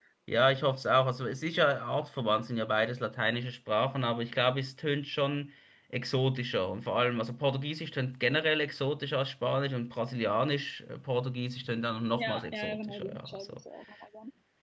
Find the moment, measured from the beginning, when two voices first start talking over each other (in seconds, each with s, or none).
12.2 s